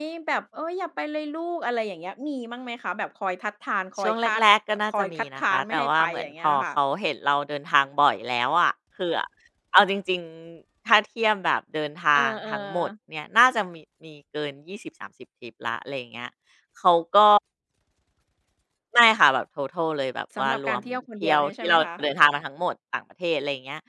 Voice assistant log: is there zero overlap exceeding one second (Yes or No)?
No